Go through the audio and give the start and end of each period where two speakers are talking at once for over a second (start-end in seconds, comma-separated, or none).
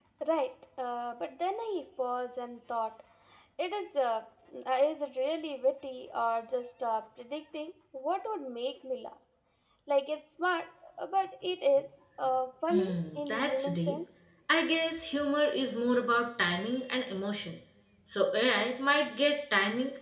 12.7-14.0